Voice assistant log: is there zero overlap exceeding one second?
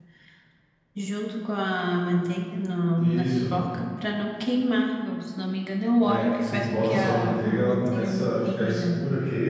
No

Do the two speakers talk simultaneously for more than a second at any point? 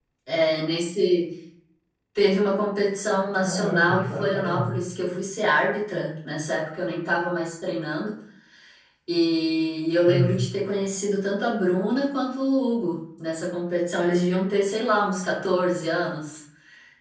Yes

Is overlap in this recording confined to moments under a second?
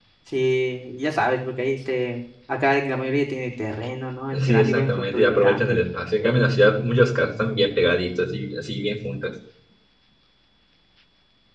No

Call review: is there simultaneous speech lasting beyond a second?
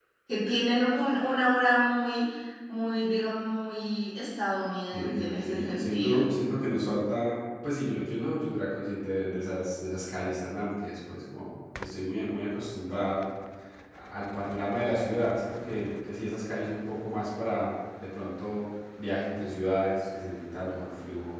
Yes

